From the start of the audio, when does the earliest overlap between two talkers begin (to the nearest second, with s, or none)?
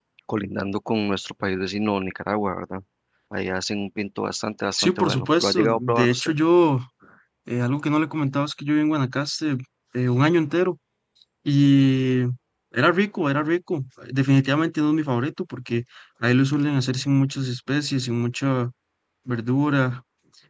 5 s